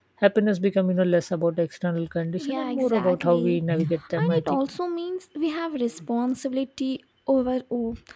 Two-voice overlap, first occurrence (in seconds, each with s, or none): 2.4 s